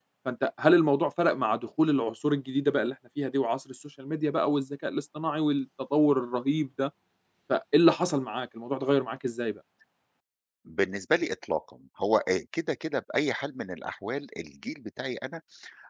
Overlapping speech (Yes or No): No